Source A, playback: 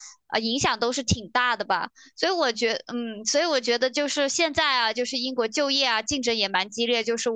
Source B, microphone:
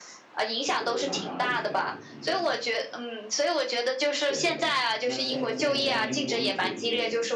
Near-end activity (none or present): present